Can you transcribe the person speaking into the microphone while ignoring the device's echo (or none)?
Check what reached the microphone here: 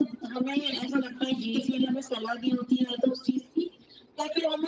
जी।